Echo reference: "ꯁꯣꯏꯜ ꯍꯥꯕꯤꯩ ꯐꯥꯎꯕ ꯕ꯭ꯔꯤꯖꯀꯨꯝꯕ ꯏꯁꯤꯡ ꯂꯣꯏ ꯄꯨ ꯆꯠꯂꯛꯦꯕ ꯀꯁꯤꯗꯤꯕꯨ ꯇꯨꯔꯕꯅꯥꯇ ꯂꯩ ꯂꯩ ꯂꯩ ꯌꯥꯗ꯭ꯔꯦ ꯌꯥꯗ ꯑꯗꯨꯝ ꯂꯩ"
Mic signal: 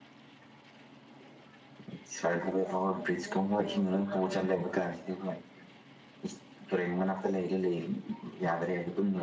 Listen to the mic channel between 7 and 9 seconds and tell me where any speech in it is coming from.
echo only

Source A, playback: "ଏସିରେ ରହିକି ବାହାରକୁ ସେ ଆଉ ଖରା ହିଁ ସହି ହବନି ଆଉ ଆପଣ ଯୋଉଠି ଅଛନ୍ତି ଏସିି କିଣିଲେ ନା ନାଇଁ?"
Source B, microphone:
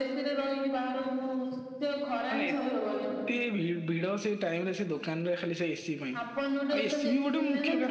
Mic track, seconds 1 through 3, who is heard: both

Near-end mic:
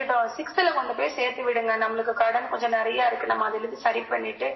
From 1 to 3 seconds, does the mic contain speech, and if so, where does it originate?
echo only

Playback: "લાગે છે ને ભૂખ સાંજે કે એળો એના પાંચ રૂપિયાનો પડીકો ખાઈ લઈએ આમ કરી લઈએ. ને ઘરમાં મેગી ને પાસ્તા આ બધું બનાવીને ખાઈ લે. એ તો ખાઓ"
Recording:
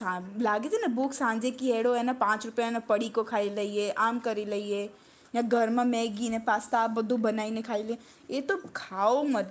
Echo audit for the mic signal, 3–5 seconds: echo only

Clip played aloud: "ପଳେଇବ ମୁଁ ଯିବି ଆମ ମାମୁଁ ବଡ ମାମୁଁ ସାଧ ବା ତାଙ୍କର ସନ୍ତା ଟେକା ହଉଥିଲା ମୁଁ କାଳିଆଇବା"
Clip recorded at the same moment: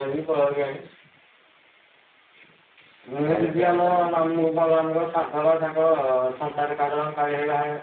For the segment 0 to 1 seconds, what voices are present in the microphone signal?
echo only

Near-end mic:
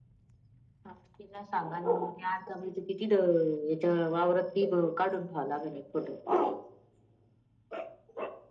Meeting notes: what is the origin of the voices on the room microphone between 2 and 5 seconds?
echo only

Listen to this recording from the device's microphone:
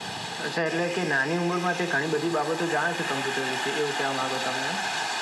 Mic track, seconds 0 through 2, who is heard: echo only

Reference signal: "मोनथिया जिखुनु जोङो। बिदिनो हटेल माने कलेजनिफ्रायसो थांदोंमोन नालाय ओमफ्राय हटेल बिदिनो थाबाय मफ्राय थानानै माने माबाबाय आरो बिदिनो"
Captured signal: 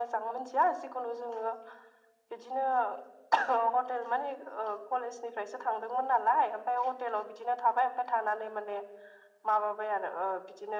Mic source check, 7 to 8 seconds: echo only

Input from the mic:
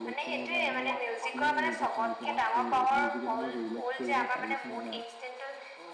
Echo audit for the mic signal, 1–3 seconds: both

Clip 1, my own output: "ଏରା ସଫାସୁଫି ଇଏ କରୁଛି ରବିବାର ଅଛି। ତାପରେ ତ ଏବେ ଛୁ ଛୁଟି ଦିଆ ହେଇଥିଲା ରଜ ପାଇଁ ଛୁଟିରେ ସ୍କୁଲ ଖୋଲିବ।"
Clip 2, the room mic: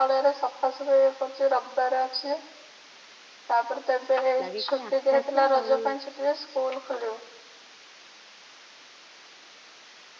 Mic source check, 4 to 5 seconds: both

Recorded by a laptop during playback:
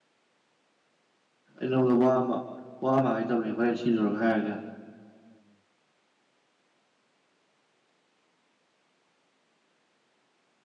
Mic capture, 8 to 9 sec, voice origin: neither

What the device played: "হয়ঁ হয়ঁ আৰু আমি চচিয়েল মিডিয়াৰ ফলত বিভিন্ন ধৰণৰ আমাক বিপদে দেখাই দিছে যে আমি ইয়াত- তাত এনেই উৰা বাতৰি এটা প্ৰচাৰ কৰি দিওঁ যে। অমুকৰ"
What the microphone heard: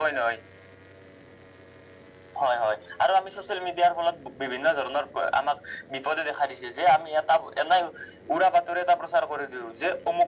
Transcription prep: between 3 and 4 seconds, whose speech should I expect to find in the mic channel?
echo only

